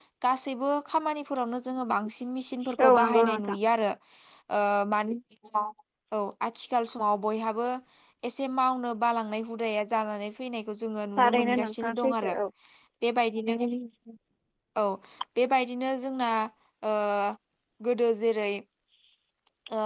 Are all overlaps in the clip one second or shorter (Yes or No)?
No